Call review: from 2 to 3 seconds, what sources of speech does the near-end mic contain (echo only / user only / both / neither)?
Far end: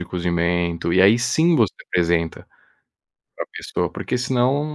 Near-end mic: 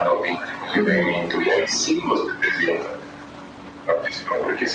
echo only